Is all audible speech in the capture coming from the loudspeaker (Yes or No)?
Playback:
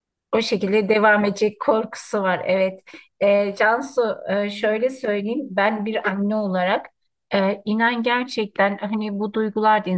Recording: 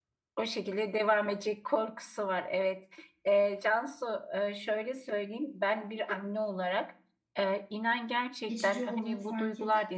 No